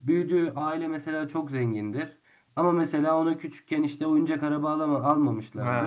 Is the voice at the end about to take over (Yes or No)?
No